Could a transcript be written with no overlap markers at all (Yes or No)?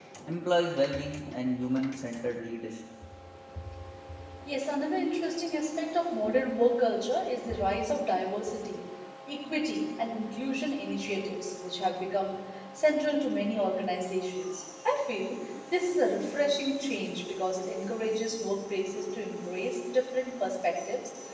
Yes